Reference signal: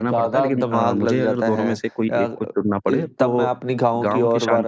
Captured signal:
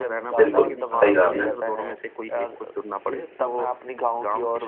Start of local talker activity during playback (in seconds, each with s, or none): 0.4 s